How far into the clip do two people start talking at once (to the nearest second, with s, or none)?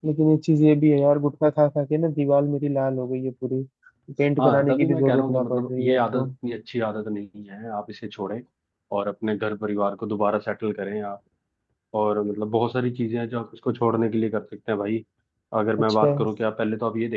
4 s